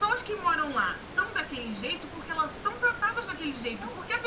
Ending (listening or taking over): listening